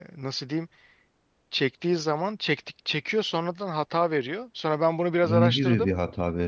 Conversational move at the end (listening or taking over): taking over